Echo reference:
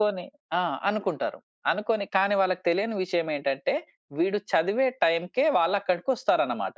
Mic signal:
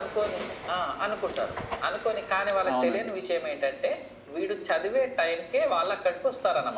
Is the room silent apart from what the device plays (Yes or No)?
No